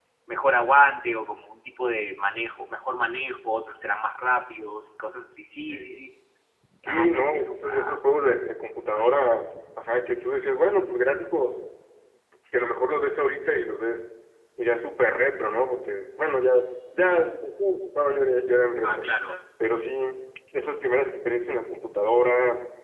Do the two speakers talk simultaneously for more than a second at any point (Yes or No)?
Yes